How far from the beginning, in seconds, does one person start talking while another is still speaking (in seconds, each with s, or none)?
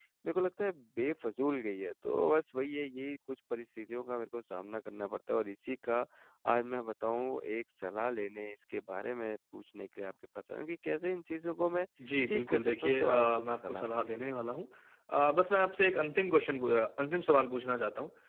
12.3 s